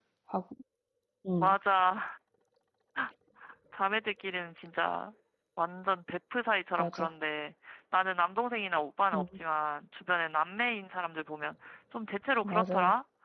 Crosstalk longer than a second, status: none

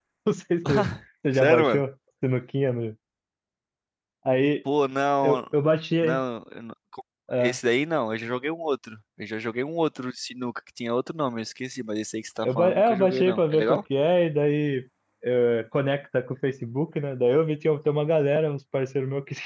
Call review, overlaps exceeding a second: present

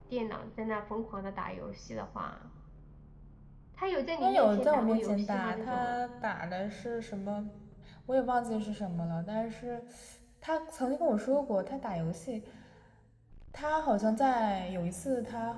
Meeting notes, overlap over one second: present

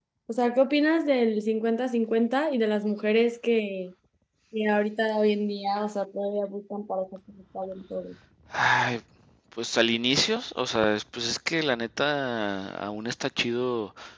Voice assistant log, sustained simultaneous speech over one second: none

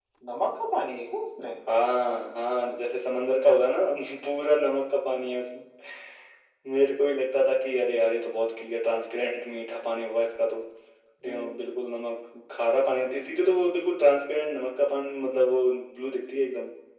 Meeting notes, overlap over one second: none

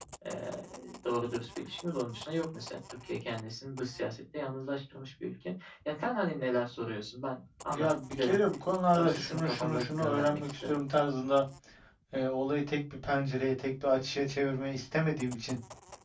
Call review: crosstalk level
present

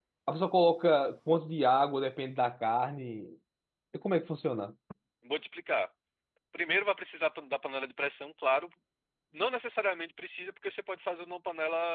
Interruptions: none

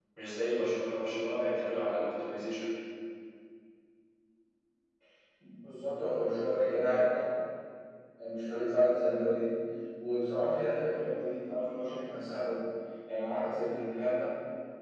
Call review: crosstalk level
none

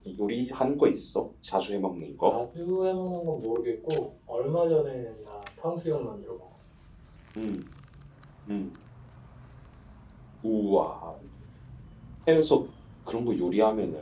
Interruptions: none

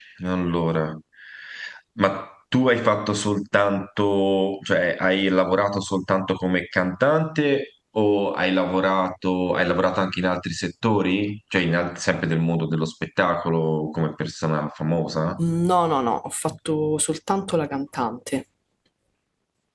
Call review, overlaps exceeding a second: none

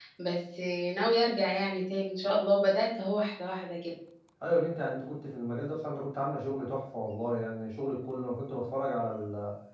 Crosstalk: none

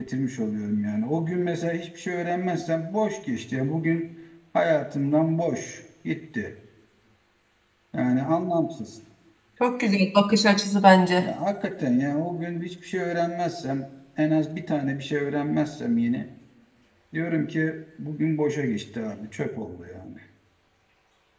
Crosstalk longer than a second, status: none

